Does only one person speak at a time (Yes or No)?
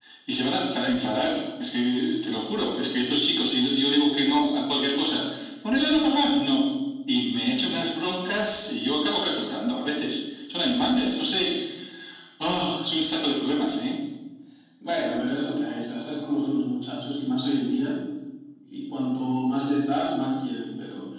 Yes